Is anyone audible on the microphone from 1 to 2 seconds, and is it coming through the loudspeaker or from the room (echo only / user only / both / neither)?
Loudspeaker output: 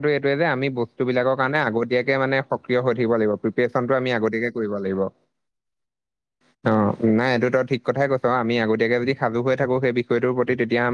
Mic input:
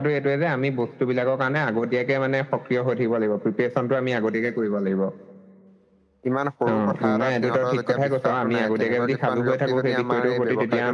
echo only